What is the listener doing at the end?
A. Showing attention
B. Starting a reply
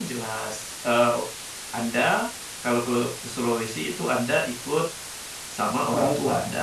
A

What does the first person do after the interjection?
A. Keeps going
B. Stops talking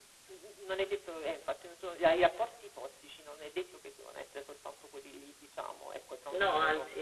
A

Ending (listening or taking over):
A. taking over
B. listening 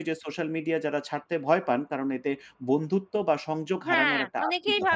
A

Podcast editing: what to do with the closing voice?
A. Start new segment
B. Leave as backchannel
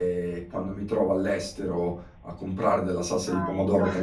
B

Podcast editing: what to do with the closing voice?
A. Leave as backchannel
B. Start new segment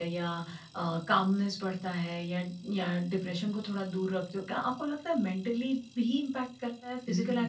B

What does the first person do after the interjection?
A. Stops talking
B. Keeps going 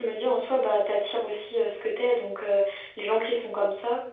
B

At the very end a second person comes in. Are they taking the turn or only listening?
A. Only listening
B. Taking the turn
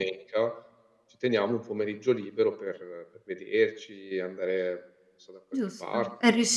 B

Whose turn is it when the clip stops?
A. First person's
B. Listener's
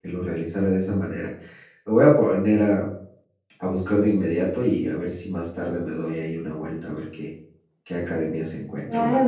B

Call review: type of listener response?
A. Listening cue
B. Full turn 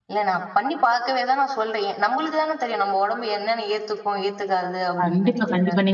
B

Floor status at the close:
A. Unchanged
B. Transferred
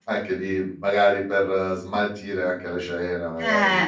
B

